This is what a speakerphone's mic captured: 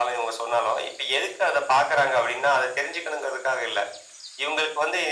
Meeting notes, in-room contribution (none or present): none